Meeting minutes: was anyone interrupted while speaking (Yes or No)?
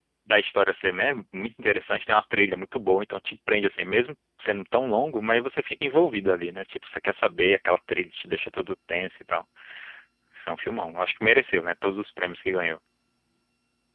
No